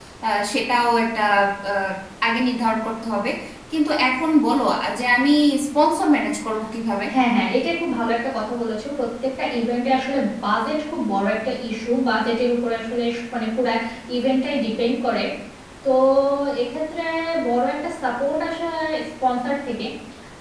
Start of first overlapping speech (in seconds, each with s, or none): none